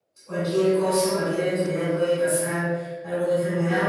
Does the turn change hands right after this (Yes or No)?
No